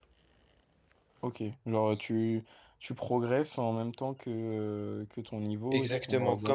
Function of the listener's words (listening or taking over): taking over